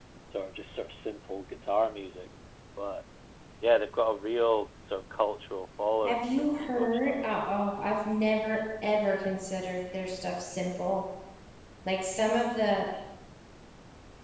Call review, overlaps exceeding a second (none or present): present